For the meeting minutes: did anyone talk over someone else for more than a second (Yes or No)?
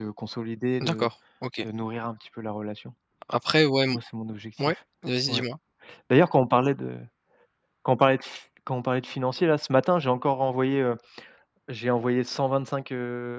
No